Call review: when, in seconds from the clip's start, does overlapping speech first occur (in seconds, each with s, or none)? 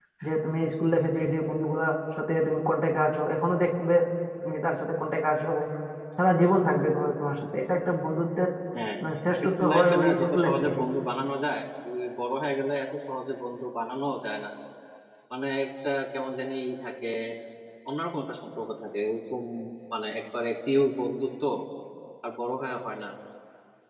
9.5 s